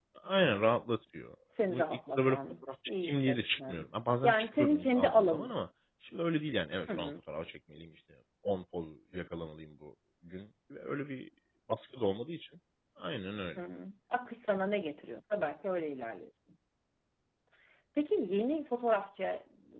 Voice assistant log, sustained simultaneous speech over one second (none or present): present